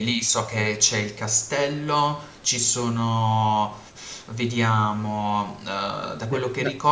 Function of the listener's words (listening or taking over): listening